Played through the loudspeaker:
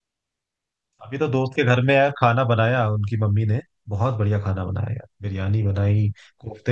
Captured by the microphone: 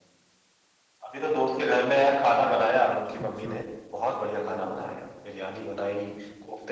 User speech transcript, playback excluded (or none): अच्छा